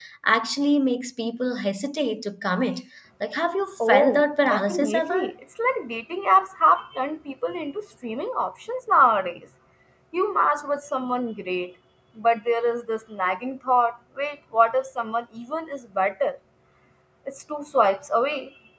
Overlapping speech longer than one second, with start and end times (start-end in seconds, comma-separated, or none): 3.9-5.3